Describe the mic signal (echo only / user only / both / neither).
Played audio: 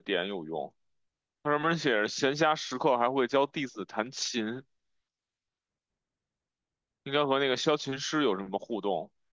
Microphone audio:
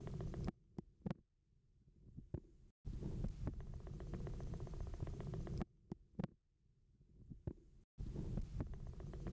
neither